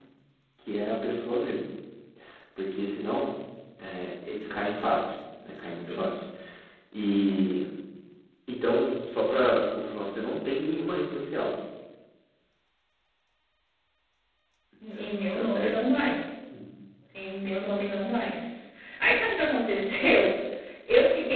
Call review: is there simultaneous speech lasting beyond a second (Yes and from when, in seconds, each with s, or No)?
No